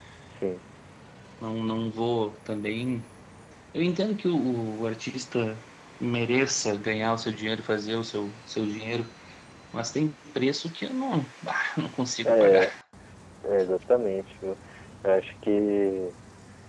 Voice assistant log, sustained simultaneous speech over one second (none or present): none